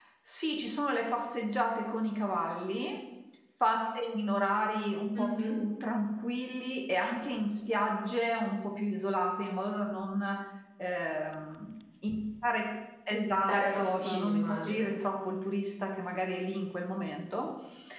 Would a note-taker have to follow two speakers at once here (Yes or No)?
Yes